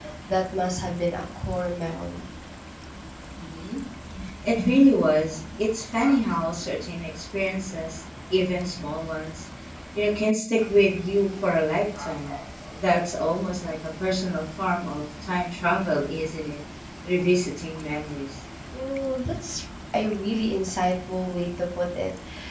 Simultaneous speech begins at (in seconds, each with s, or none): none